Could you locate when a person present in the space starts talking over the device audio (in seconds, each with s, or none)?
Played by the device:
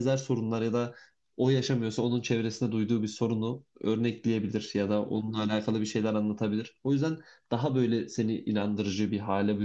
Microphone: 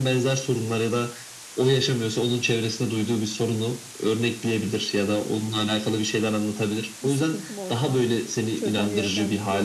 7.0 s